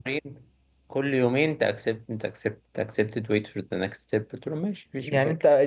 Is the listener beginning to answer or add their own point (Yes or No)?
Yes